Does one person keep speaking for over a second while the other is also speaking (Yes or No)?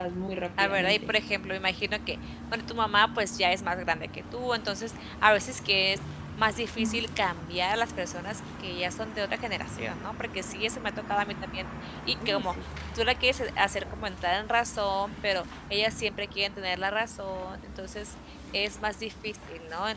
No